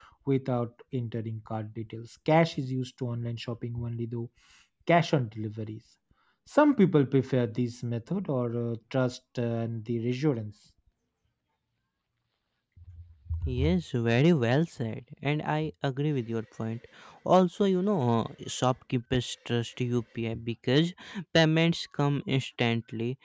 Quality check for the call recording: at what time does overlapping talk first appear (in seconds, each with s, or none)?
none